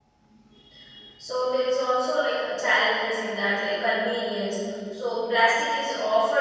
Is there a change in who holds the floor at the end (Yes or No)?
No